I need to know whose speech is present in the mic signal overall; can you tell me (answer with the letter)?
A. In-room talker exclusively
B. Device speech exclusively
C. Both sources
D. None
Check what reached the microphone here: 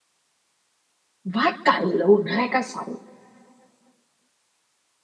A